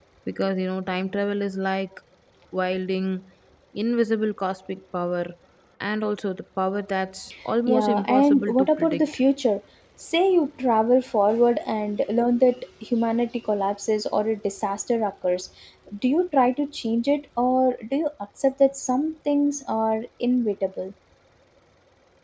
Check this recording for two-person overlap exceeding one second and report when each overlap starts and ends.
7.7-9.1

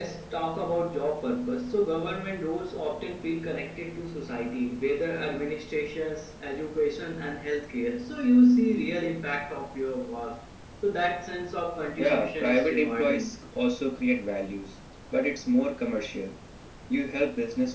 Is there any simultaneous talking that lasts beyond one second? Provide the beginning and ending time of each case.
12.0-13.3

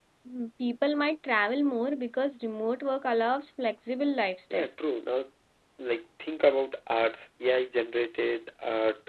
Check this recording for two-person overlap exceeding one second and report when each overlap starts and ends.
none

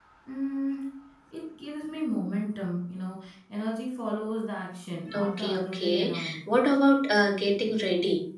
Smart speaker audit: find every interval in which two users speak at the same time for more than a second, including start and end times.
5.1-6.3

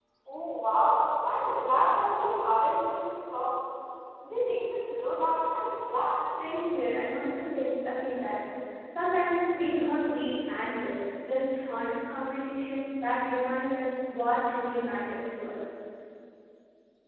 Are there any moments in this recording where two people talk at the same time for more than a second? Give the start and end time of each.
none

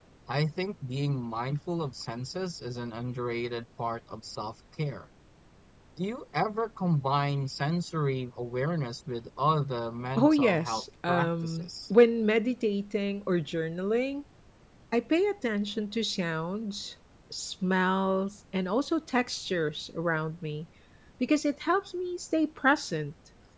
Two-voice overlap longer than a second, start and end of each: 10.2-11.7

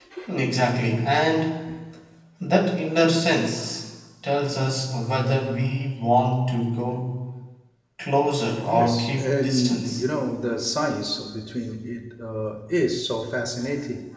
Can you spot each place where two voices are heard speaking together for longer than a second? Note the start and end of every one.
8.6-10.0

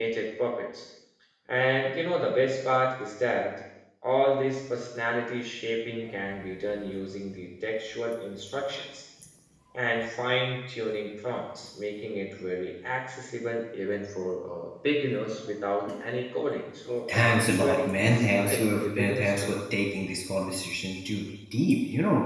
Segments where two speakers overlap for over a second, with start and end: 17.1-19.6

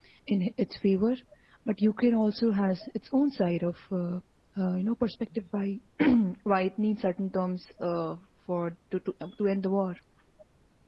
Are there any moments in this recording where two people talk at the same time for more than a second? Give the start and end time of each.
none

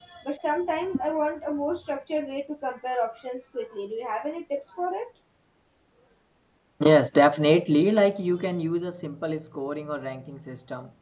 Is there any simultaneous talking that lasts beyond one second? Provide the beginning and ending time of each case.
none

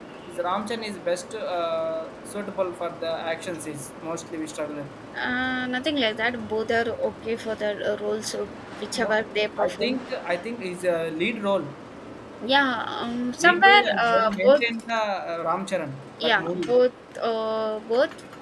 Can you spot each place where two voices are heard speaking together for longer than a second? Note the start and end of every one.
13.4-14.6

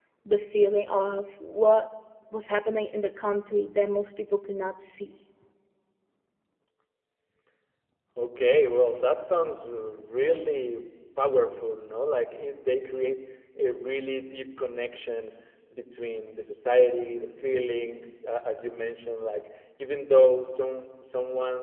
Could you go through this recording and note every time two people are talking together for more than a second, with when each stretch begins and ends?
none

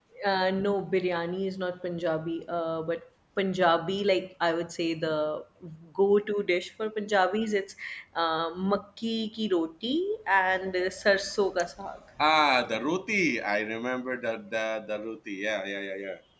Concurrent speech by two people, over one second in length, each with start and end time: none

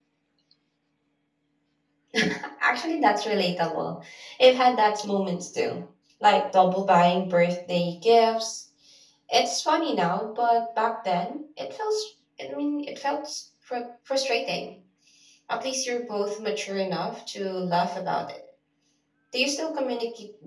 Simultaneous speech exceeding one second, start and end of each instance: none

